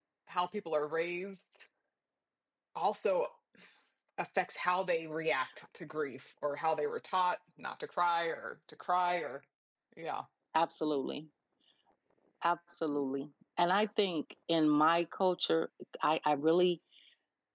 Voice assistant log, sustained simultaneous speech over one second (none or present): none